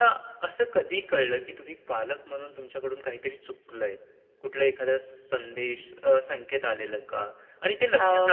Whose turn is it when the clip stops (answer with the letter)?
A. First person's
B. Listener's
A